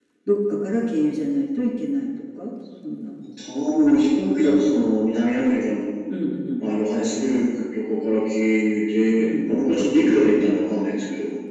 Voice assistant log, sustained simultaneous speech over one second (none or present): none